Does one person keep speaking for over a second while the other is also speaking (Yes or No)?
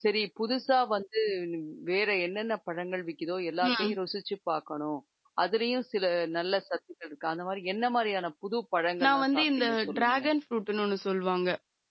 Yes